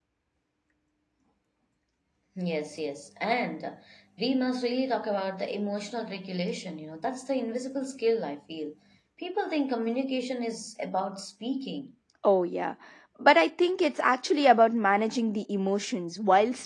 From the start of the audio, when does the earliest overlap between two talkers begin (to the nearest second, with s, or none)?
none